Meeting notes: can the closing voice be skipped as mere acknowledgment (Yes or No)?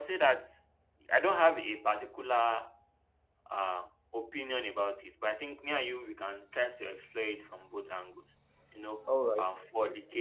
Yes